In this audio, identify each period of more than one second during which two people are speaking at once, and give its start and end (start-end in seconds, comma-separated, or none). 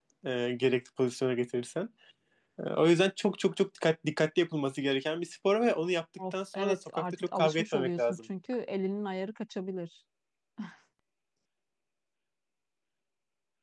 6.3-8.2